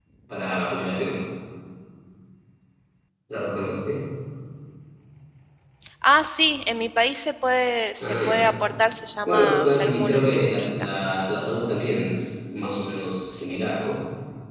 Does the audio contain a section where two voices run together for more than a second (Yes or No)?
Yes